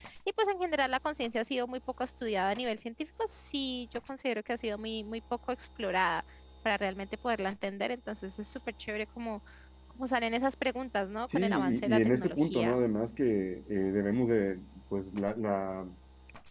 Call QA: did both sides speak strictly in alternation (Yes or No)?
No